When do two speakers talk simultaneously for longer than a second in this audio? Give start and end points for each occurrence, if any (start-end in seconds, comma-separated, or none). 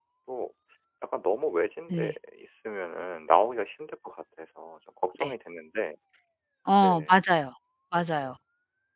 none